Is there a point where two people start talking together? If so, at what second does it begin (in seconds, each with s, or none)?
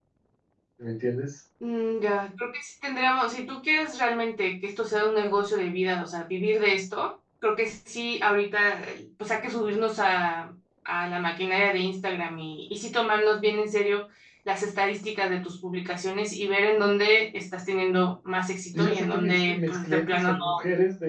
18.7 s